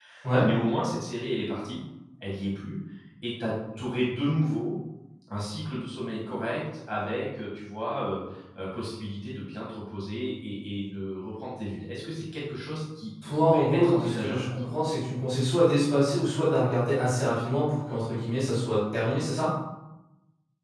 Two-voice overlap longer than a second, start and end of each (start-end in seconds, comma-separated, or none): 13.3-14.7